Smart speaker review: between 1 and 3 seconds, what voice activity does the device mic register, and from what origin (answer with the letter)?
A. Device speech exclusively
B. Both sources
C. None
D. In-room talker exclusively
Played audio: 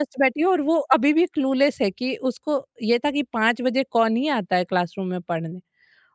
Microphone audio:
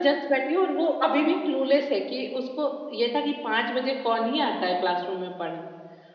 A